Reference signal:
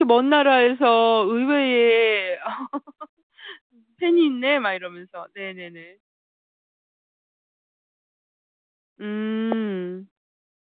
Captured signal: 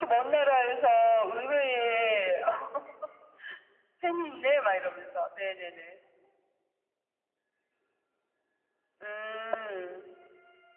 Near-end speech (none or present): none